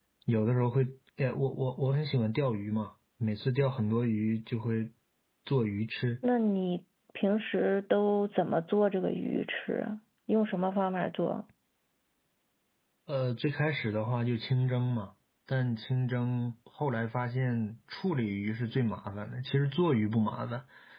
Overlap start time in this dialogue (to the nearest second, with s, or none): none